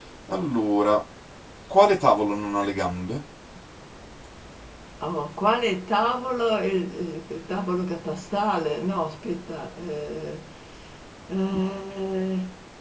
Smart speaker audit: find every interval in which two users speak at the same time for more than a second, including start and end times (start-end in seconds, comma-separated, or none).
none